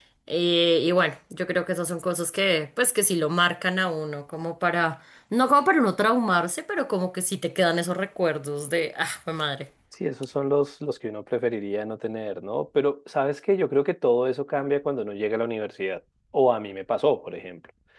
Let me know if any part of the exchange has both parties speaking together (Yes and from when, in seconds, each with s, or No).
No